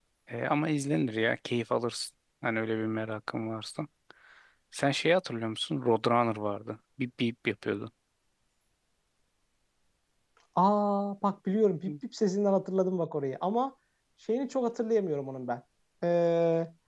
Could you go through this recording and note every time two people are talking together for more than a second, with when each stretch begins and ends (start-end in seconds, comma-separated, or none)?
none